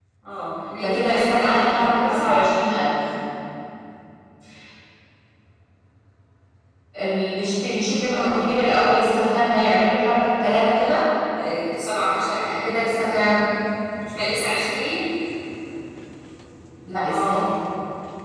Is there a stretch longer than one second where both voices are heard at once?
Yes, from 0.8 s

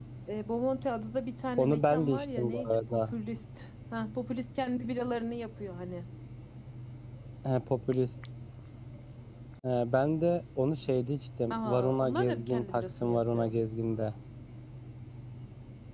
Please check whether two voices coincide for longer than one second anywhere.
Yes, from 1.6 s

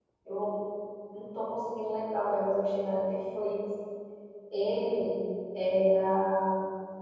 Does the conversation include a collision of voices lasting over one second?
No

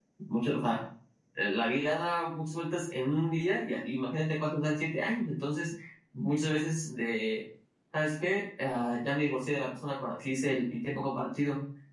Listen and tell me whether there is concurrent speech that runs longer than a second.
No

